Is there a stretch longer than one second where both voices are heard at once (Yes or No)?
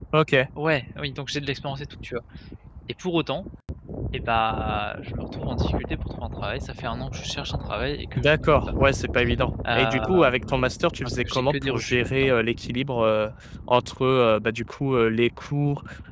Yes